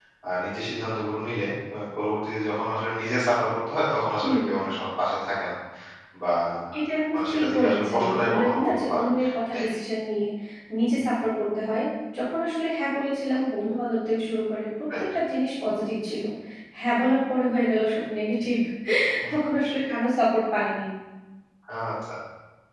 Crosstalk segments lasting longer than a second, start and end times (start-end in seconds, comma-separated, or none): 7.1-9.0